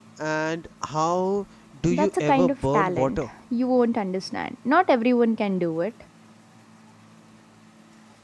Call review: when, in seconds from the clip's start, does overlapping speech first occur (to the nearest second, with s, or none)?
2 s